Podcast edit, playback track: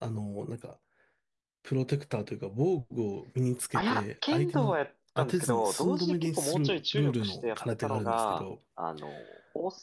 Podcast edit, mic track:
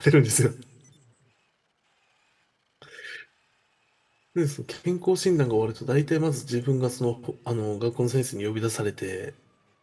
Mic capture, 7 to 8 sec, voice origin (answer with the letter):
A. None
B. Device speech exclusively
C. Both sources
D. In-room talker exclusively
D